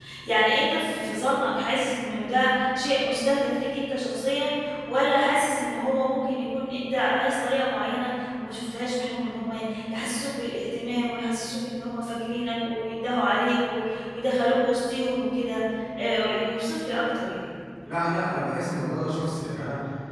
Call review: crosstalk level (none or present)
none